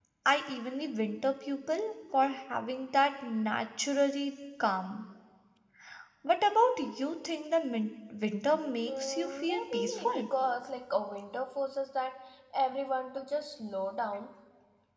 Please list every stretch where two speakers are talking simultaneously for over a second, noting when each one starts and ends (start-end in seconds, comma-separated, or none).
8.8-10.3